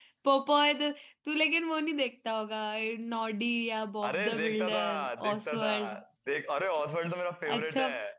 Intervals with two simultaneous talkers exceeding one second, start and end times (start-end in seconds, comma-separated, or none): 4.0-5.7